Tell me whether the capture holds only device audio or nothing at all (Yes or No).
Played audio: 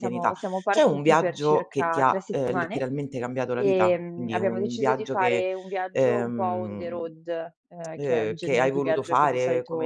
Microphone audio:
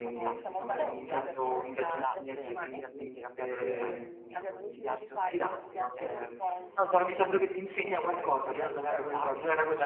No